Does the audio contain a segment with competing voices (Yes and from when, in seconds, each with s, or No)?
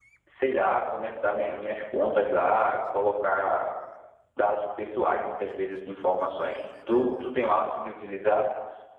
No